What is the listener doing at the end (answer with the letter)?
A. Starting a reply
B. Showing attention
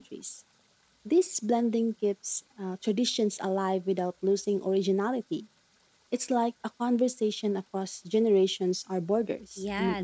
A